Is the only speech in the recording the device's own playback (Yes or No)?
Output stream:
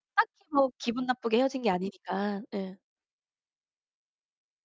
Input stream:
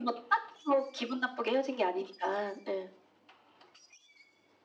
Yes